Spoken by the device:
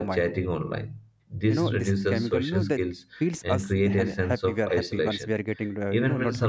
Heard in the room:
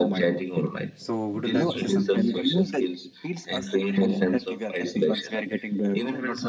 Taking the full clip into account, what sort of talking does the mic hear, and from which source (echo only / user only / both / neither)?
both